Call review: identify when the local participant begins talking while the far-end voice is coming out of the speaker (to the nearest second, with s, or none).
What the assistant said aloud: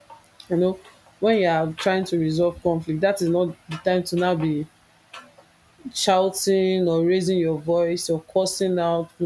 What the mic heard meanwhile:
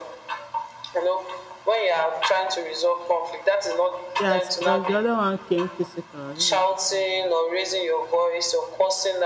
4 s